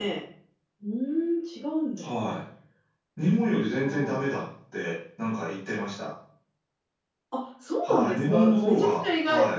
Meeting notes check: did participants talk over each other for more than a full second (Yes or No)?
Yes